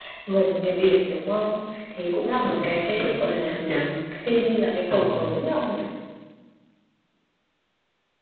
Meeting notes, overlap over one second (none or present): present